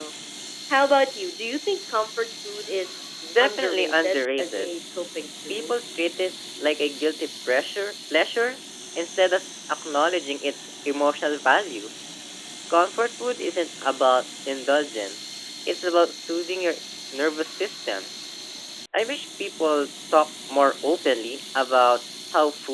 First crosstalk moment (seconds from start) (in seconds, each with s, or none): 3.4 s